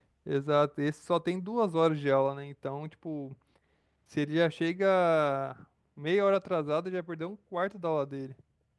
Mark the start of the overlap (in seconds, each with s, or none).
none